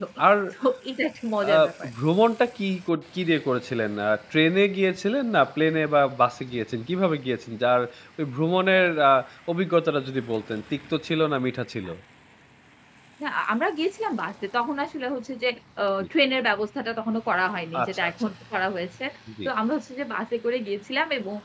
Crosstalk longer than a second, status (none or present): none